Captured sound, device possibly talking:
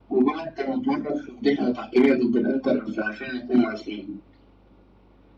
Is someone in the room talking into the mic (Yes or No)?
No